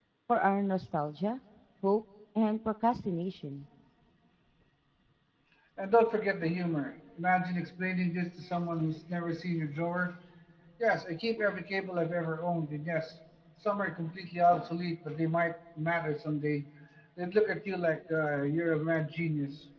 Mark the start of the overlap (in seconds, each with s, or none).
none